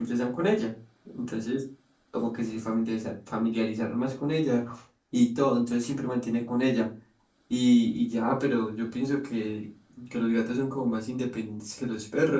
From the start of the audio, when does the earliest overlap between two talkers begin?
none

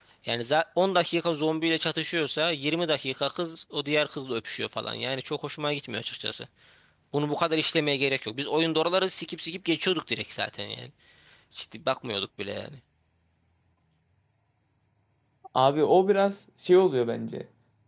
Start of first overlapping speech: none

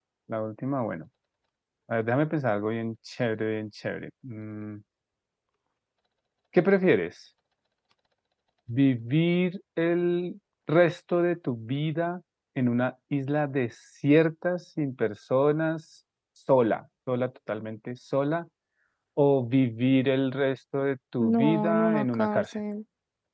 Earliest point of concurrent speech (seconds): 21.2 s

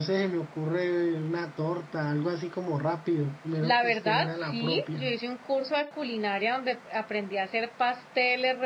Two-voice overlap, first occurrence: 3.6 s

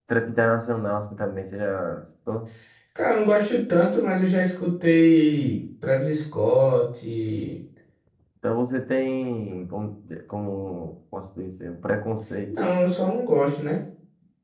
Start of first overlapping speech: none

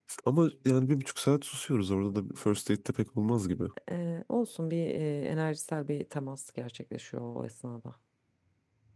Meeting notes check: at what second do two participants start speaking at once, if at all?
none

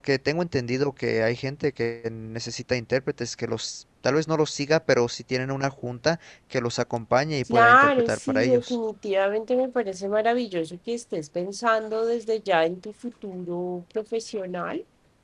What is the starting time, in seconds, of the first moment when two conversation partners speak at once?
7.5 s

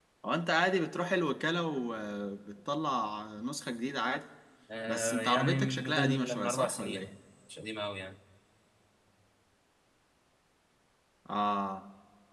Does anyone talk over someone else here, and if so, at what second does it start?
4.9 s

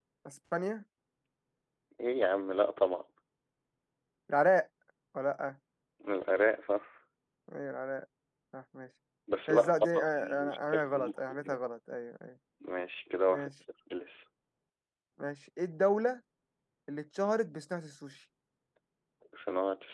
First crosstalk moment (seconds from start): 9.5 s

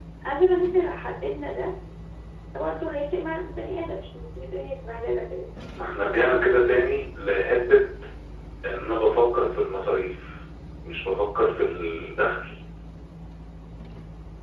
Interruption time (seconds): none

